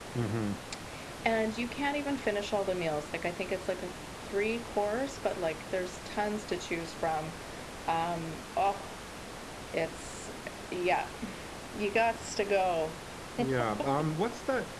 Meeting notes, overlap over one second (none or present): none